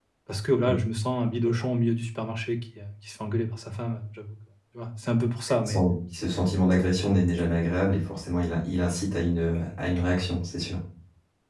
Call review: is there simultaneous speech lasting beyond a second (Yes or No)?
No